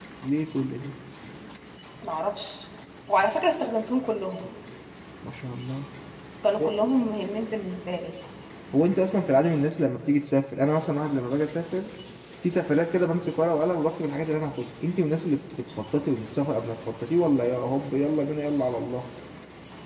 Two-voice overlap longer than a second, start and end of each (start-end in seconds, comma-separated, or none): none